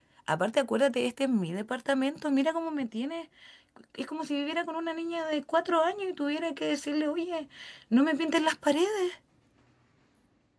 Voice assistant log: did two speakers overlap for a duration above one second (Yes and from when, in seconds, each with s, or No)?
No